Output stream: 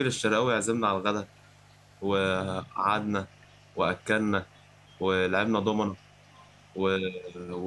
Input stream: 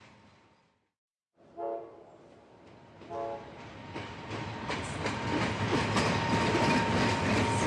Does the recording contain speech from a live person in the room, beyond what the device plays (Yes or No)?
No